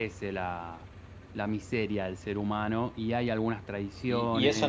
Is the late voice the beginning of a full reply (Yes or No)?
Yes